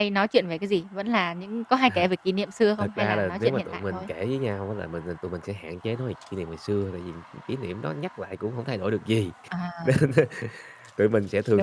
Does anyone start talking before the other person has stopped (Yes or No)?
Yes